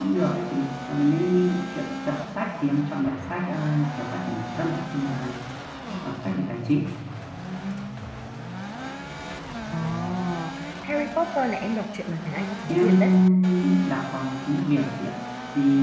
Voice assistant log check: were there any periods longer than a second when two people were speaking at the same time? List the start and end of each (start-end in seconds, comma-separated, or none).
none